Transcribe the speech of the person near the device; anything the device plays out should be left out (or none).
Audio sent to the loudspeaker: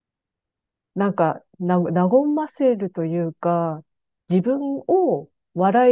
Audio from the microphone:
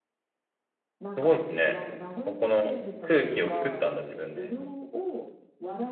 すごいですね。ここの空気を作ったんだ、自分で。